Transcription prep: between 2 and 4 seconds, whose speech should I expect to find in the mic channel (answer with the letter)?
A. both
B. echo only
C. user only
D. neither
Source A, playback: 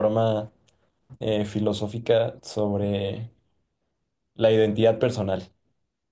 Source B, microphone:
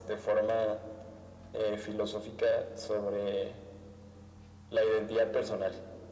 B